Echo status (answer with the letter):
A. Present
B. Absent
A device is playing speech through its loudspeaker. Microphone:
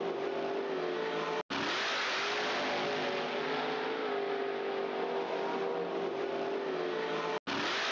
B